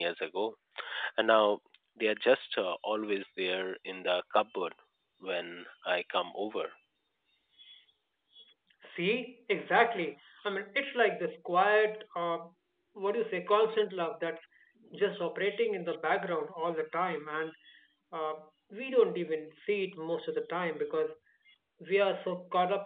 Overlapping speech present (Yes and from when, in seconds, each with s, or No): No